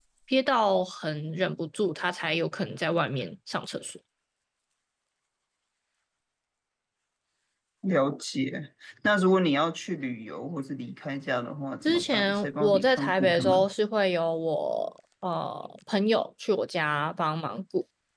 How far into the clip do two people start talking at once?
12 s

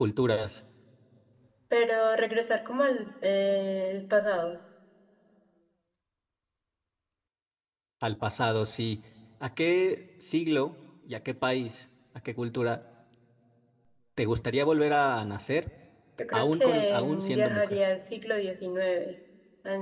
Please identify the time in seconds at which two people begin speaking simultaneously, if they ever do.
16 s

